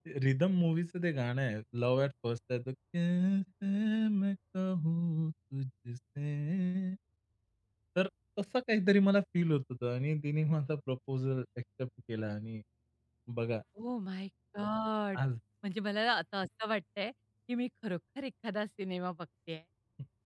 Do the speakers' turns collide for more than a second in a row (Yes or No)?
No